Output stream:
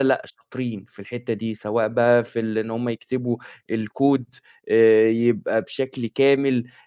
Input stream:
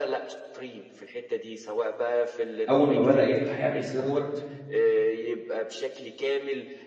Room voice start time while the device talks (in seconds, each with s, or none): 2.7 s